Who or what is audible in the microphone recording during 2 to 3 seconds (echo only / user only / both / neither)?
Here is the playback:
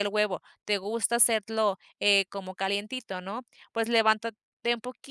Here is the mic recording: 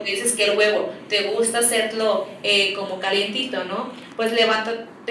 echo only